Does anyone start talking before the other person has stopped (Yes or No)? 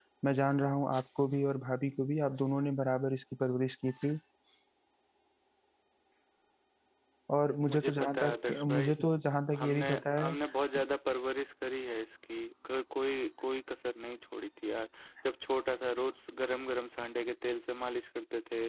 Yes